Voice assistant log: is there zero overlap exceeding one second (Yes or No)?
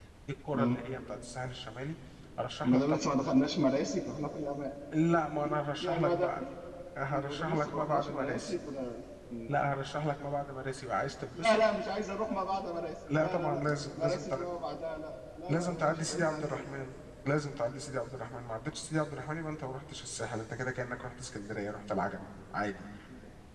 No